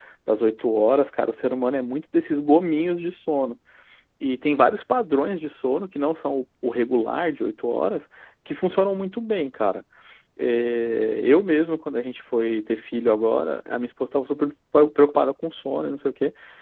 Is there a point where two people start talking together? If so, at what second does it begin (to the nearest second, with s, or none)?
none